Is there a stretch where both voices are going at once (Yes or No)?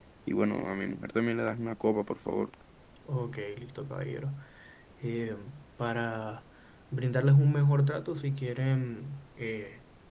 No